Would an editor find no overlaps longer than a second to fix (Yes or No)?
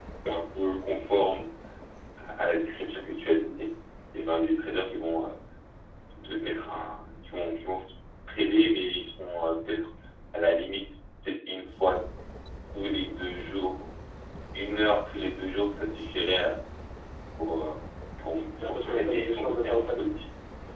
No